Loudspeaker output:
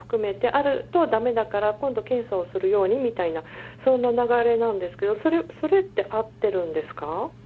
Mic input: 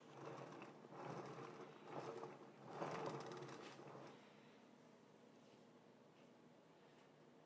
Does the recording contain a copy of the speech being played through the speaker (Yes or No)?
No